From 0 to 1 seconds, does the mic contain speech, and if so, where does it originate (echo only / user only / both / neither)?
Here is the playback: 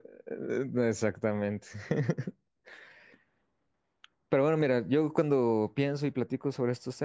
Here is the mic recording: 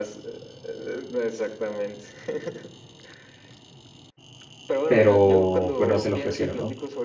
echo only